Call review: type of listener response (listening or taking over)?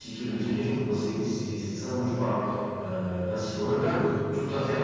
listening